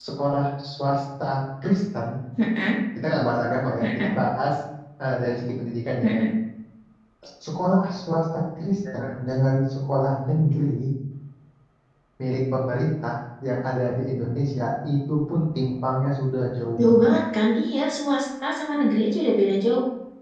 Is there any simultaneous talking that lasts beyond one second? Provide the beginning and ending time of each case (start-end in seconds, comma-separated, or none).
none